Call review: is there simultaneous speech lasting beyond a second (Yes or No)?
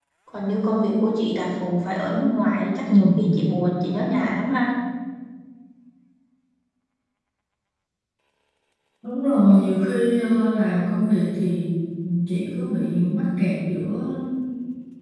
No